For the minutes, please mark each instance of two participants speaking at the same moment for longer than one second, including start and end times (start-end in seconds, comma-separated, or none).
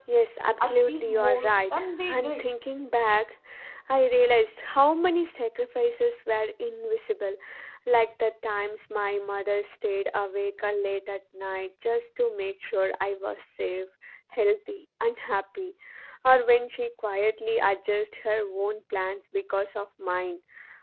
0.6-2.4